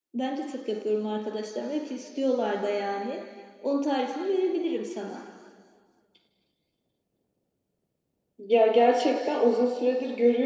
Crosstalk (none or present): none